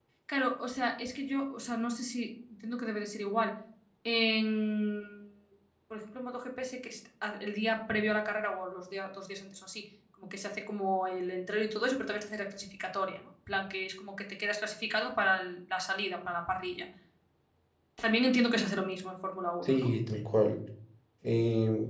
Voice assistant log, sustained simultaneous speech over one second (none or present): none